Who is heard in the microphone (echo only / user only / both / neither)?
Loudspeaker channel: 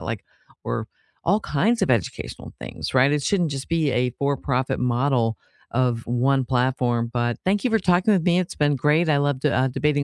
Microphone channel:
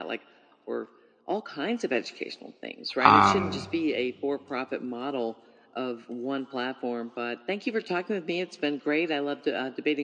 both